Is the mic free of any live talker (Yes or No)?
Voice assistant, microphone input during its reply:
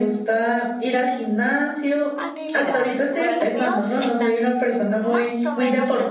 No